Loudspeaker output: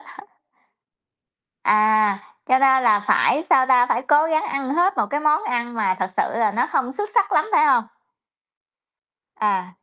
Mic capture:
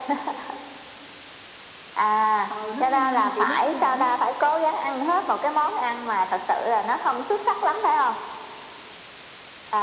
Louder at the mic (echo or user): echo